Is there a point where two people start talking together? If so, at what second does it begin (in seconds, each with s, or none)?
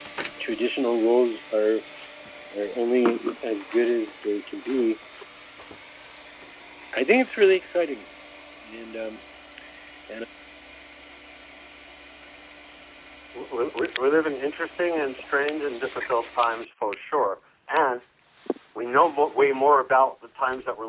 none